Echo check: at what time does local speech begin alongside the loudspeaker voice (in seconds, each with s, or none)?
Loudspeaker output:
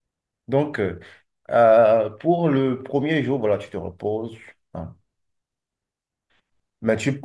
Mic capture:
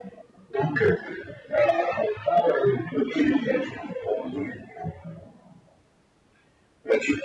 4.2 s